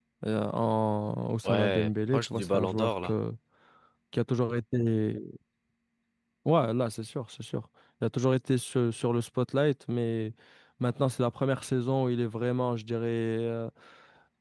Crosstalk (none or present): present